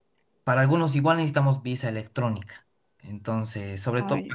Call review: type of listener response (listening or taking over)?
listening